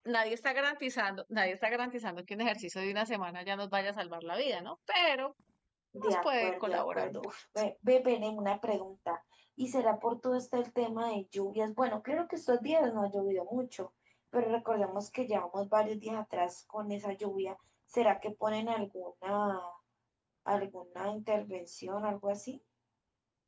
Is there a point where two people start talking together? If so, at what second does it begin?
6.0 s

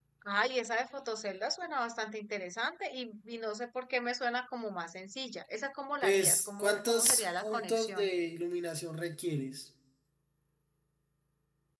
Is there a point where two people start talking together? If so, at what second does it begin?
6.0 s

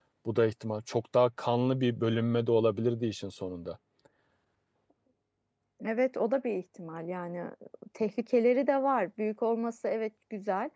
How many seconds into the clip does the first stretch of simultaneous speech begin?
none

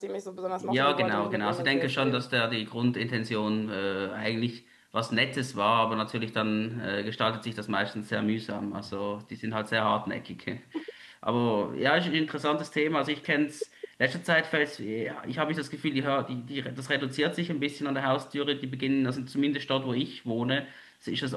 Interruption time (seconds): 0.6 s

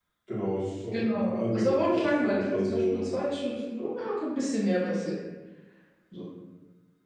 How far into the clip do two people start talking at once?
0.9 s

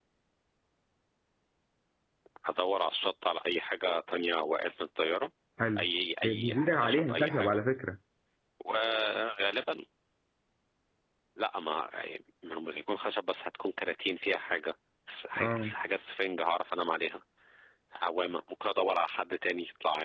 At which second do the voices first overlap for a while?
6.2 s

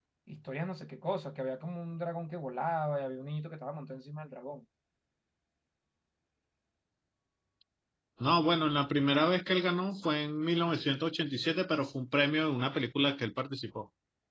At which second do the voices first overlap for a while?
none

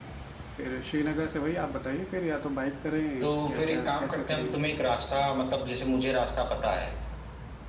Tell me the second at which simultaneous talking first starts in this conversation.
3.2 s

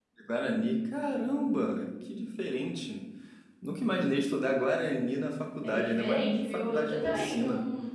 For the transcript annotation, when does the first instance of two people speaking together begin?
5.6 s

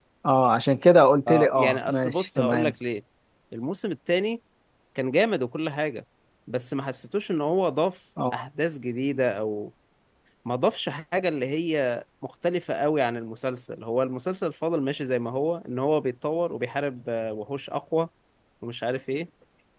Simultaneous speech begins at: 1.3 s

